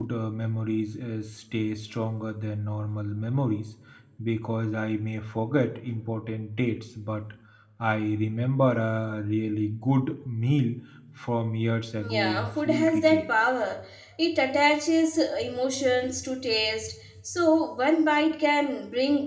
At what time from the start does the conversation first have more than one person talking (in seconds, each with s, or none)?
12.0 s